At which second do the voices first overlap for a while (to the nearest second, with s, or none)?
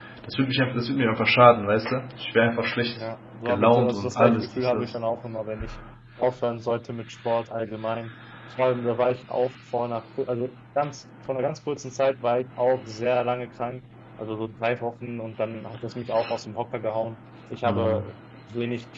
3 s